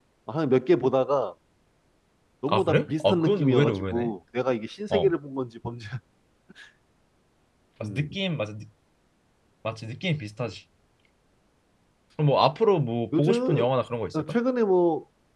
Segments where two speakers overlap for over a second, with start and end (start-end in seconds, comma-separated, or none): 2.5-4.1